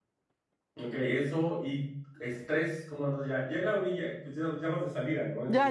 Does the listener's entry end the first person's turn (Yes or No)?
Yes